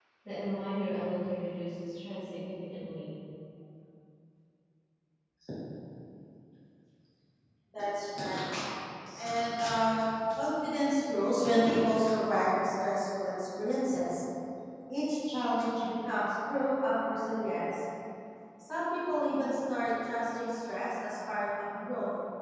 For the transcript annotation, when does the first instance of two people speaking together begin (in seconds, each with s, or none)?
none